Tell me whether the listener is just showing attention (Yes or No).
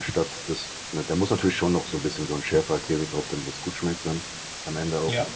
Yes